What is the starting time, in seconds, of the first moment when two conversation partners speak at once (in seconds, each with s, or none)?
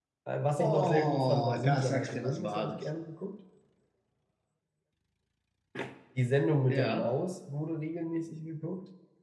0.6 s